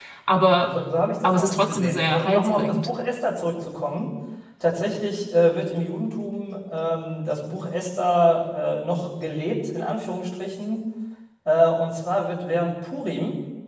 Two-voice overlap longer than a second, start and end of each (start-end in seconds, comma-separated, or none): 1.2-2.9